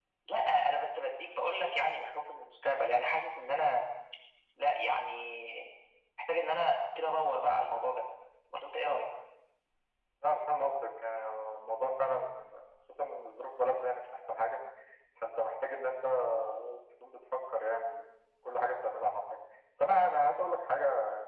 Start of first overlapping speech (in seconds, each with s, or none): none